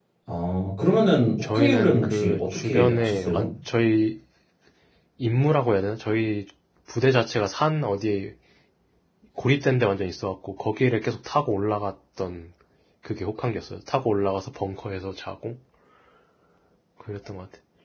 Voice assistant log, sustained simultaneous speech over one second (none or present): present